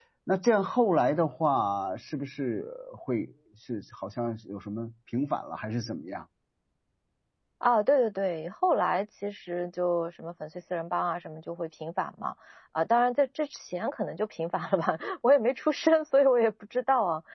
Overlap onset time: none

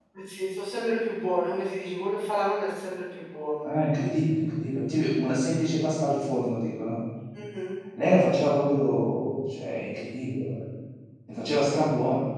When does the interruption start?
none

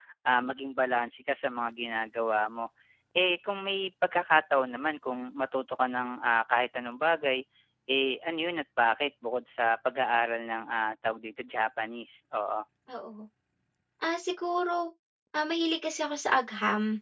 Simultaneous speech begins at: none

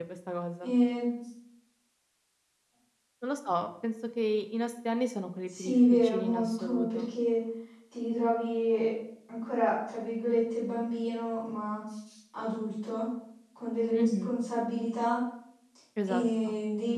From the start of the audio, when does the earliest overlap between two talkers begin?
5.5 s

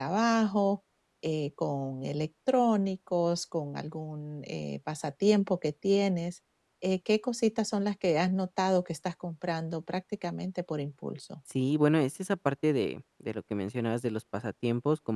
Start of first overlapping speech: none

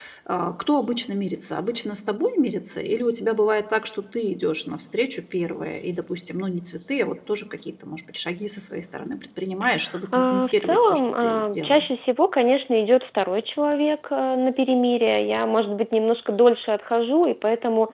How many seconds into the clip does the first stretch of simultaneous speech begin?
10.1 s

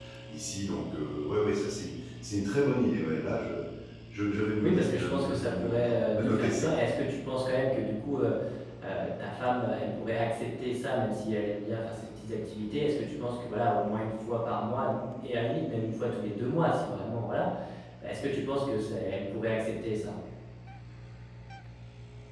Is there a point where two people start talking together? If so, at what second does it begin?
4.6 s

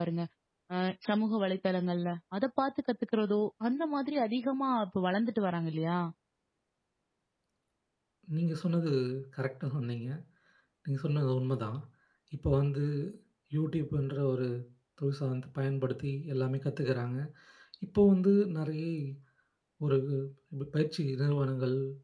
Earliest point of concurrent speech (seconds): none

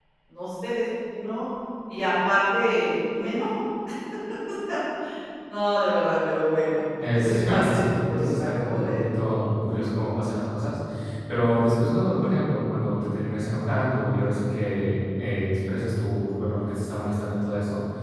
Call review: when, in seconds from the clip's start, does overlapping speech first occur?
7.0 s

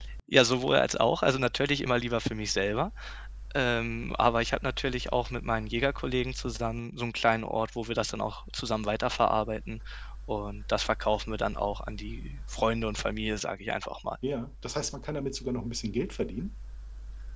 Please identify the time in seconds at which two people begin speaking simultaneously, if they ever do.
none

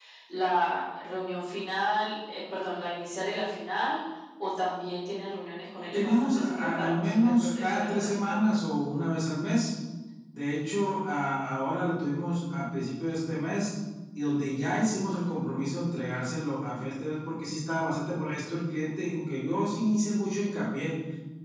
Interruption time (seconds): 5.9 s

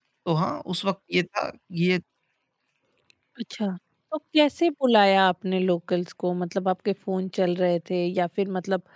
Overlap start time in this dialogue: none

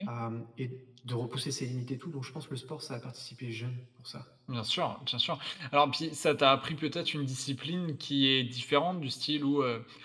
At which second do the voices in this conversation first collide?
none

